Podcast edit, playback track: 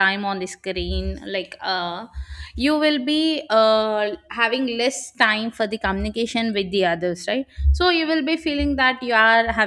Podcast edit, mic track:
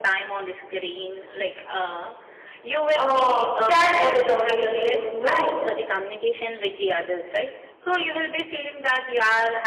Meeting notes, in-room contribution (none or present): present